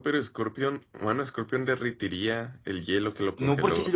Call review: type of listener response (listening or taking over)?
taking over